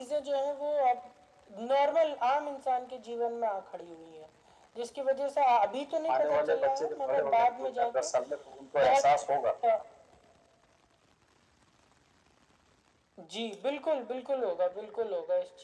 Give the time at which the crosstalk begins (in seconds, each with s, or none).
6.1 s